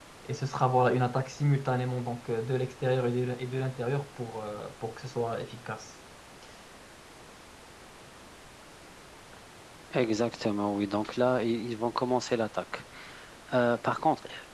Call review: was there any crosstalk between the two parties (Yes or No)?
No